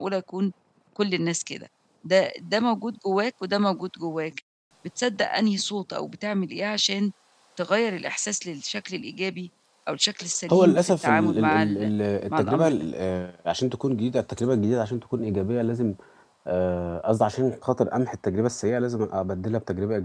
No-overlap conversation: No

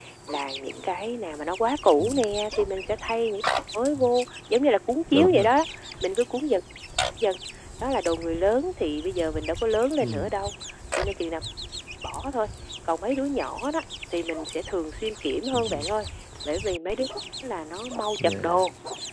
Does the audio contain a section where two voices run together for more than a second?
No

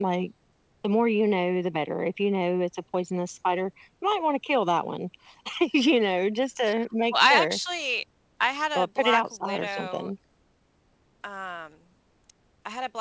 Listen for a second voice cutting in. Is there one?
Yes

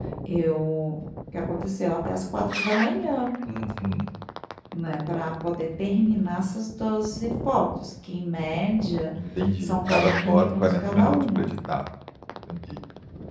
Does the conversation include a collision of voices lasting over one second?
Yes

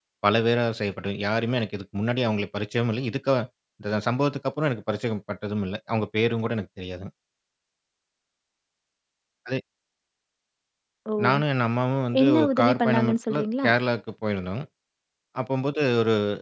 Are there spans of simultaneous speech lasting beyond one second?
Yes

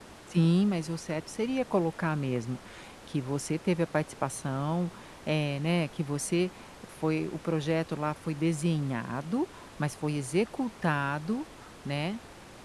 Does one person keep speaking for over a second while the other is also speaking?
No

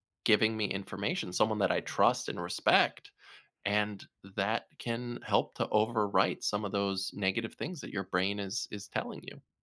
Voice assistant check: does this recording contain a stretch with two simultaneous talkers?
No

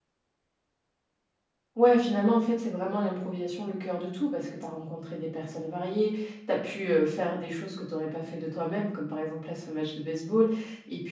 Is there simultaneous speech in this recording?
No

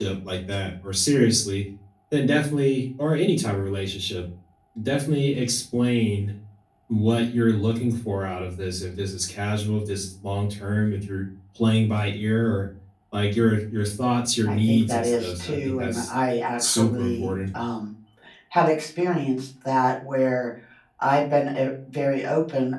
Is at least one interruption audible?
Yes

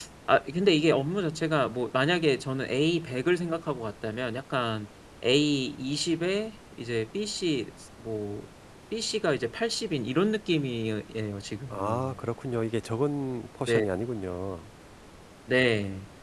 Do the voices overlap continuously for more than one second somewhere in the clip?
No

